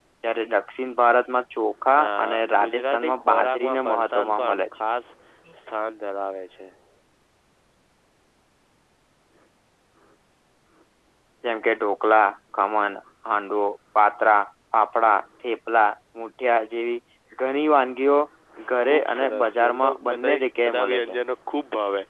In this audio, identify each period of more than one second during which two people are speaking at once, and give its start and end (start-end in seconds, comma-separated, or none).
2.0-4.6, 18.8-21.2